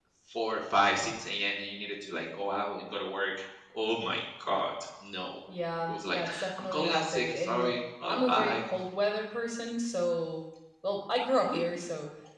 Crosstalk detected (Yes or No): Yes